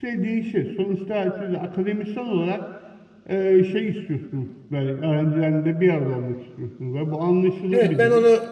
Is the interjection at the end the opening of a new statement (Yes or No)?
Yes